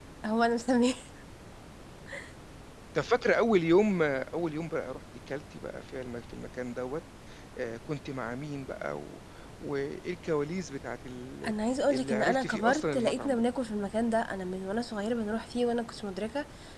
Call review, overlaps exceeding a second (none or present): present